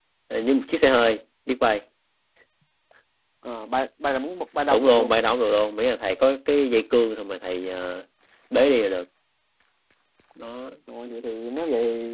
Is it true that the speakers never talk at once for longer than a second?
Yes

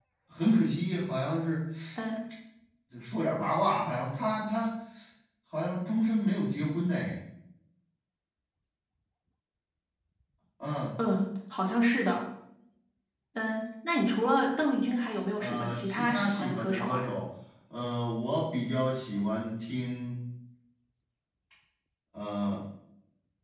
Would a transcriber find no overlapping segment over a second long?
No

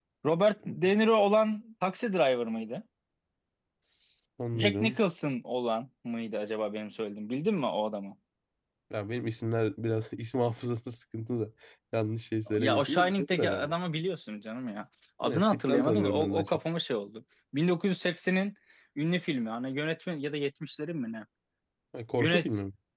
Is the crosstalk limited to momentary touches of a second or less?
No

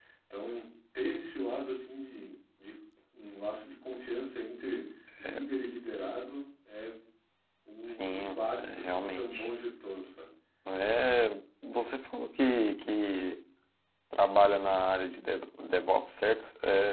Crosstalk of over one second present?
Yes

